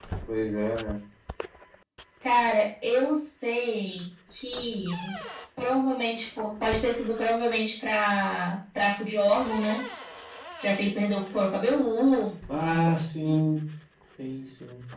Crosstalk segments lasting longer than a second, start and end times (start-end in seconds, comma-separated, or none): none